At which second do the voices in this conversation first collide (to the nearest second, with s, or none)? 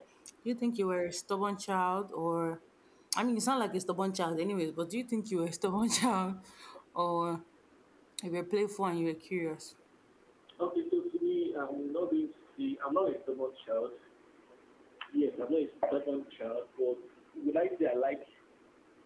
none